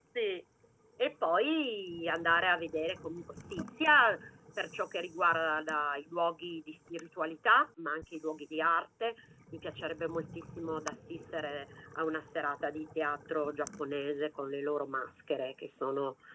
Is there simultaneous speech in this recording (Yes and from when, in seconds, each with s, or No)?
No